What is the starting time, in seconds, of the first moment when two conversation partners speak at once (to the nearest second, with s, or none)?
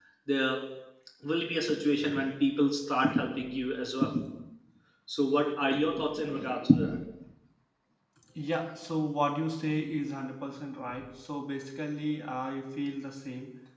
none